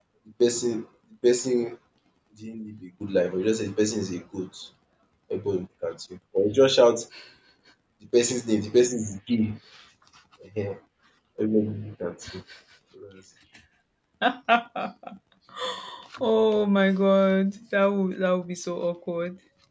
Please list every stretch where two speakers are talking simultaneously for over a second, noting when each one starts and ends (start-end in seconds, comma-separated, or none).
none